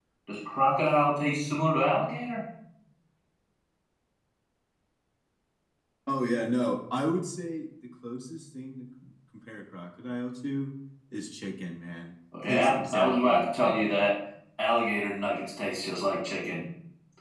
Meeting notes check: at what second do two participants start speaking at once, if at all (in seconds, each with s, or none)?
12.3 s